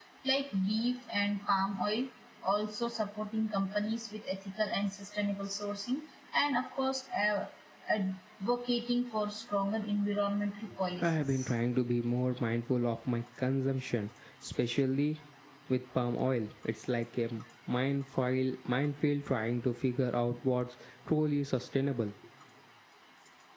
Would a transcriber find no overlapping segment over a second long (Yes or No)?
Yes